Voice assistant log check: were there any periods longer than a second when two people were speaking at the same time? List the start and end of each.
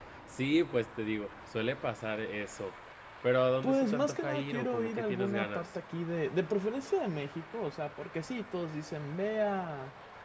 3.6-5.8

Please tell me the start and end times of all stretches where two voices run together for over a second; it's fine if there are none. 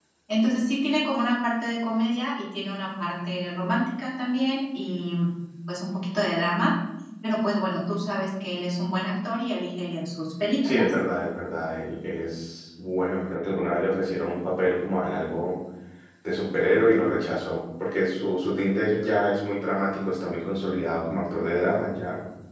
none

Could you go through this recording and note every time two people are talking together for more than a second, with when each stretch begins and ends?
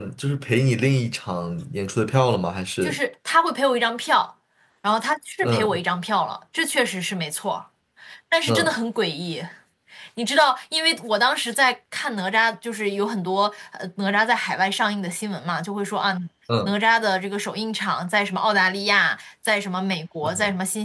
none

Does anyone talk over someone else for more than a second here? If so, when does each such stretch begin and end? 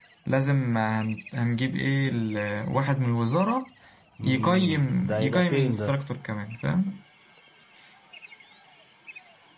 4.2-5.9

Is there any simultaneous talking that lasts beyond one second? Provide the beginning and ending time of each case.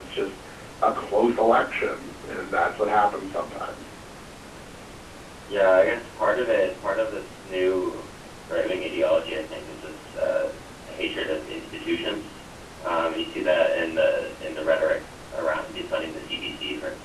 none

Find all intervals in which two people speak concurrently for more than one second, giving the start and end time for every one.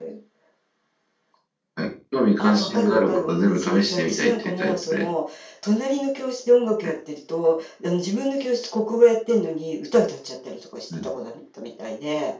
2.4-5.1

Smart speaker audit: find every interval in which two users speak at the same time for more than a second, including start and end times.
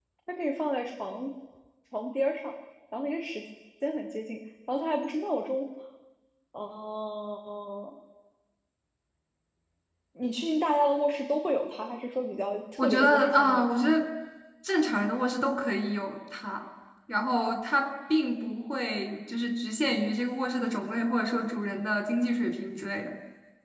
12.8-14.1

